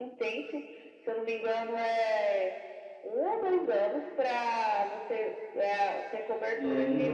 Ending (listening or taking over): listening